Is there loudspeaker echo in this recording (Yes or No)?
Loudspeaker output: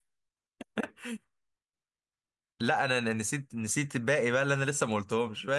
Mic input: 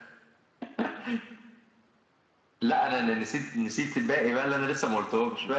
Yes